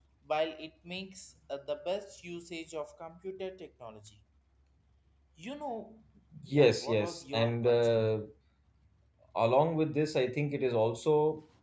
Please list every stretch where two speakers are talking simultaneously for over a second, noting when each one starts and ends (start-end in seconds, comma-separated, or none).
6.5-8.1